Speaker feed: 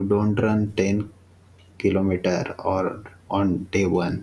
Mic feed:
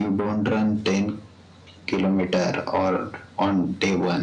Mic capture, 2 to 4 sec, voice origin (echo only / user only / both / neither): echo only